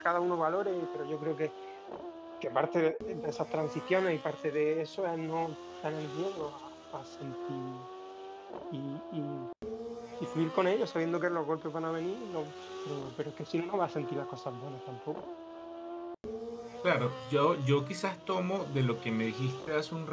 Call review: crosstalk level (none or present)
none